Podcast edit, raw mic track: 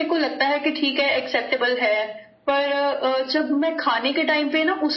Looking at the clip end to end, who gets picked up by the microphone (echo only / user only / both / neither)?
echo only